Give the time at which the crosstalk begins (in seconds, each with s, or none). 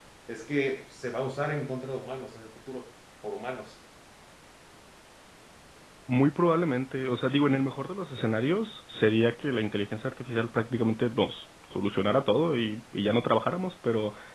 none